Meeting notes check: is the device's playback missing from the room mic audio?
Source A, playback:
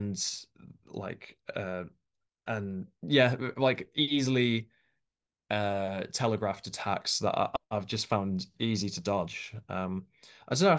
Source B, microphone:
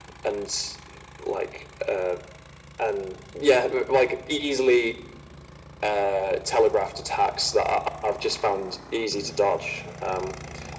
No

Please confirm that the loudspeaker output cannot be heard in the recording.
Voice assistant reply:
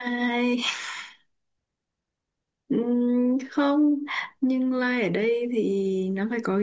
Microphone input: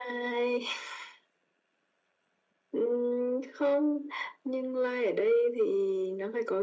No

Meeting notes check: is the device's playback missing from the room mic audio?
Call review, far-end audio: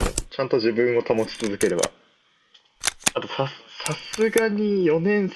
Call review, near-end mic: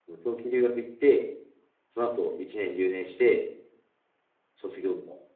Yes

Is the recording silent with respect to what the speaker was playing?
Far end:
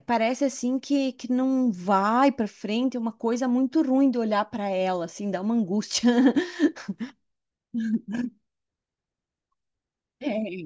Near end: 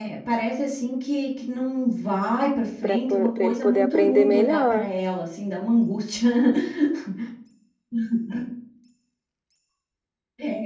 No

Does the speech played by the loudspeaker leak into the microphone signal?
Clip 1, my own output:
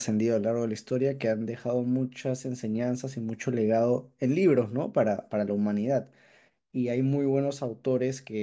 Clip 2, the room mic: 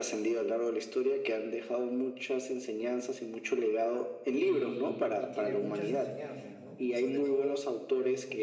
Yes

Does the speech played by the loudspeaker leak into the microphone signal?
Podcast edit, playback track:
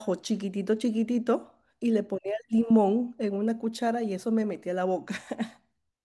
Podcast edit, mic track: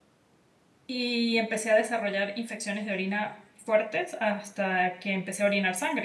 No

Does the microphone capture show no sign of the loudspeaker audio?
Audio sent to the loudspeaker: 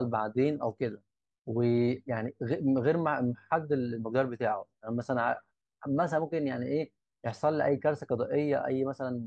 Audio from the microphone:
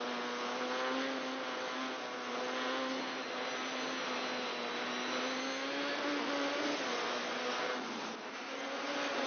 Yes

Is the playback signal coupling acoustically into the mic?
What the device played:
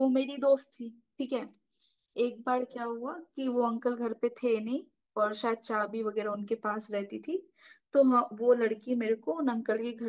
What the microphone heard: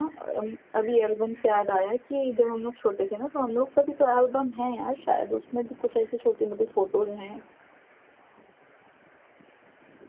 No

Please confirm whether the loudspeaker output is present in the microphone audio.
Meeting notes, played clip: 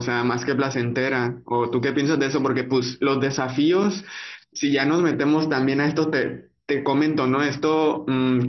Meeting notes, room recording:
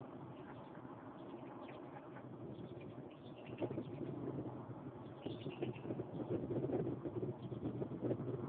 No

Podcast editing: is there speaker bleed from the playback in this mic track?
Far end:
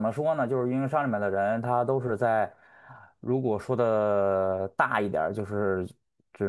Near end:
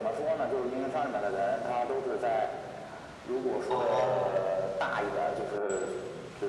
Yes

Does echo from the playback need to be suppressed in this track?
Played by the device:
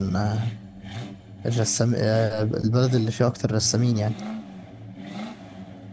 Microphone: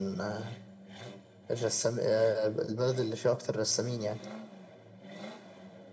Yes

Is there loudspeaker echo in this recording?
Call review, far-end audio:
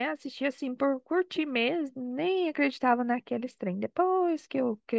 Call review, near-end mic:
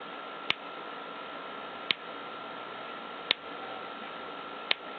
No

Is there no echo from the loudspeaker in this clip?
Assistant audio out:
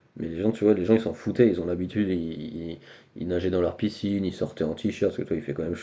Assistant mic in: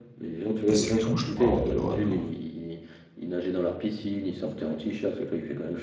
No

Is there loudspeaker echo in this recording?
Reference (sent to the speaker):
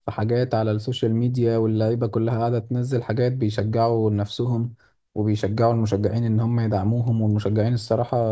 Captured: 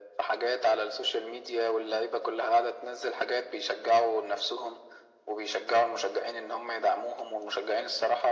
Yes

